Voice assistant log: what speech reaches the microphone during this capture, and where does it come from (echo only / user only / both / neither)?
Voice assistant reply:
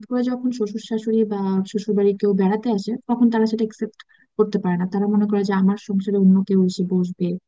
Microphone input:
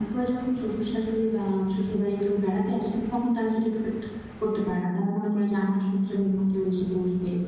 echo only